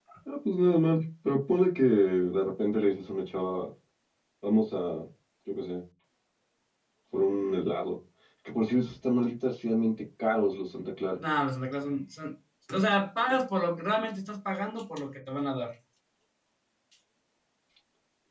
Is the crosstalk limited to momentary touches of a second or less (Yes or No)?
Yes